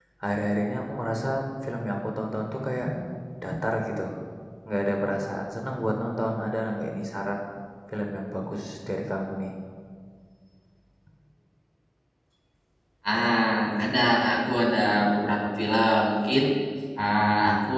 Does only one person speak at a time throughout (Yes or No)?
Yes